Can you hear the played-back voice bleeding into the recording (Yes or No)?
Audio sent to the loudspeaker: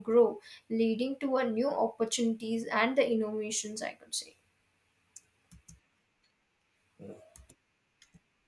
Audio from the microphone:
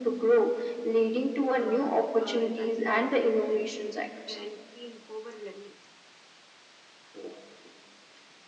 Yes